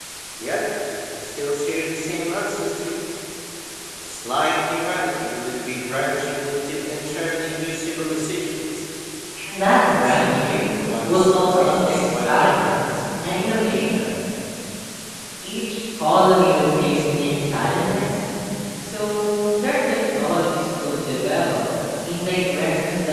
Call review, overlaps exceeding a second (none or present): present